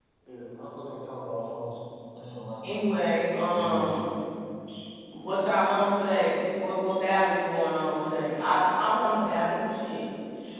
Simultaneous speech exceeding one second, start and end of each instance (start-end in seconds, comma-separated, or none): none